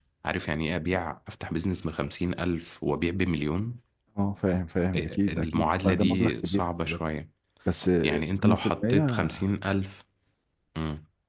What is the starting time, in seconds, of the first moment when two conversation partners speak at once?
4.9 s

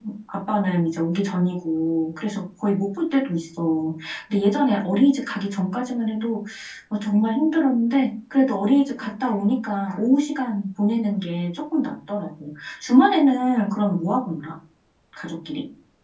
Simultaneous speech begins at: none

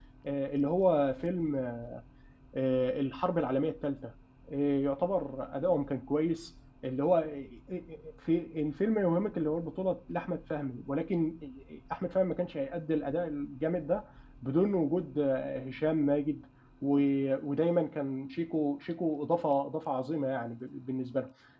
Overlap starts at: none

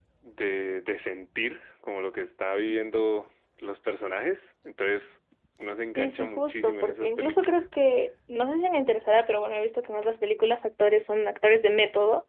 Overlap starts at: 6.0 s

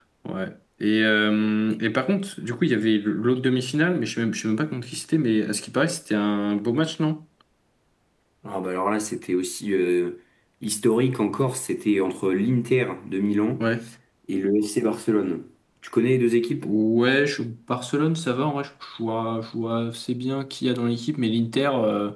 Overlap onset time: none

